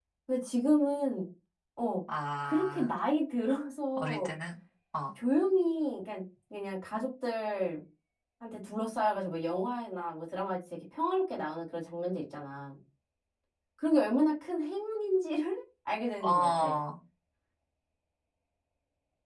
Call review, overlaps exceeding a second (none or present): none